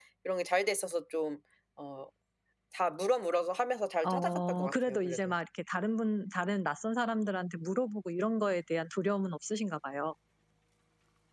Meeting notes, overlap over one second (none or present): present